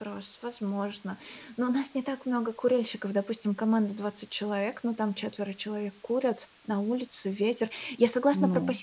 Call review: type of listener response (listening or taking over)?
listening